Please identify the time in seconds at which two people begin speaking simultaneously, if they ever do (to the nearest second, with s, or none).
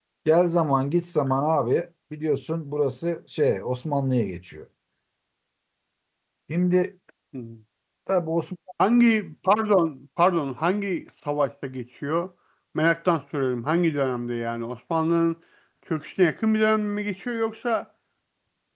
none